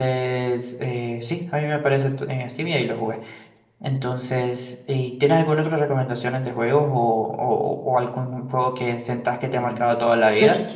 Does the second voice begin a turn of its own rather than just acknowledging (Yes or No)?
Yes